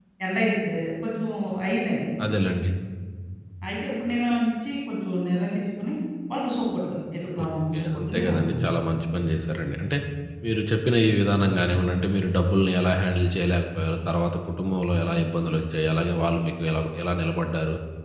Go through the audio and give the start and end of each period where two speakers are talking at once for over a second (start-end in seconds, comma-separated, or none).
7.4-8.7